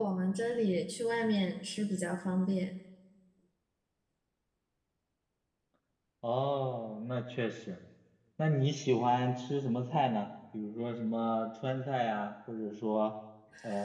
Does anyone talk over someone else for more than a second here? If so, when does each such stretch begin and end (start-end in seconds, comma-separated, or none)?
none